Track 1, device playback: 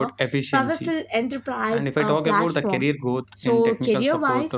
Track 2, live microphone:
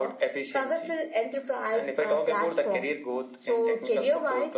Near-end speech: none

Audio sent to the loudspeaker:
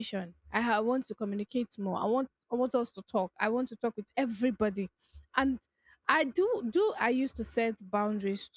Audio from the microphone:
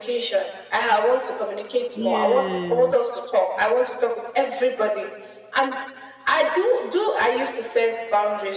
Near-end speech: present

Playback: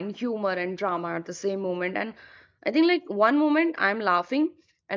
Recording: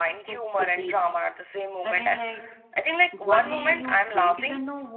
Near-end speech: present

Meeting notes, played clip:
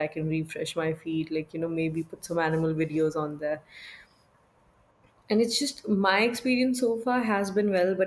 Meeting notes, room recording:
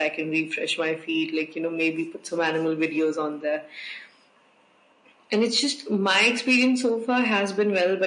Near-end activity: none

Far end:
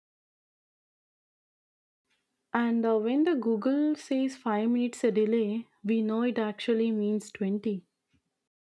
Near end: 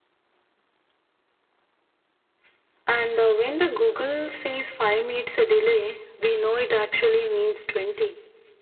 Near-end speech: none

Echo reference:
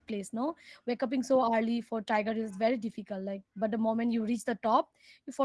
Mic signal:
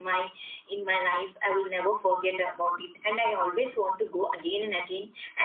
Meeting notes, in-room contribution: present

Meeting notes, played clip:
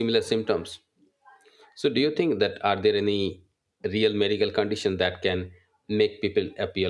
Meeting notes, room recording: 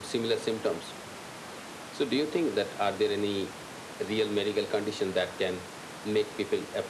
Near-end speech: none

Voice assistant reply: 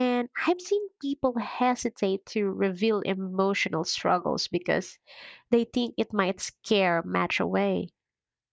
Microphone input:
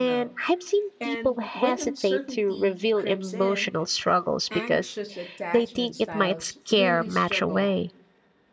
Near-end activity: present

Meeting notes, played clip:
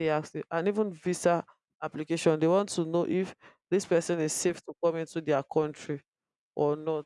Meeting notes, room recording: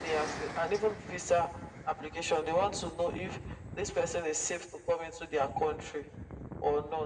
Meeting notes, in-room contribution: none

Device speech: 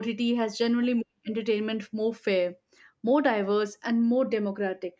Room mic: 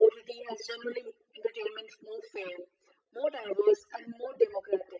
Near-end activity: none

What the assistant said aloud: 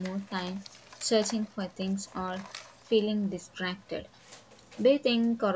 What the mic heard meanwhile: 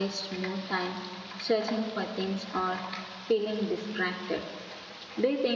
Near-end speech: none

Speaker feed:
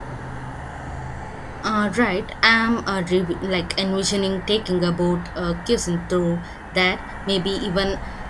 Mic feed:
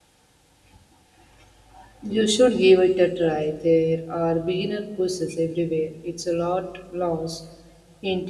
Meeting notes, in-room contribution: present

